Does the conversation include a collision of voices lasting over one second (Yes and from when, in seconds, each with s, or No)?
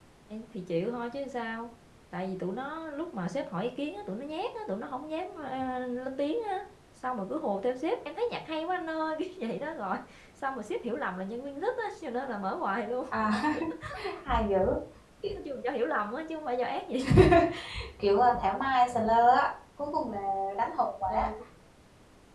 No